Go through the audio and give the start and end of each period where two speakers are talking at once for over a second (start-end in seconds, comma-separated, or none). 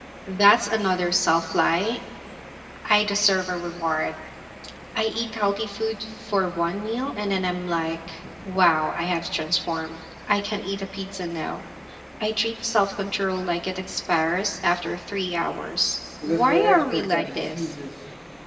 16.2-17.7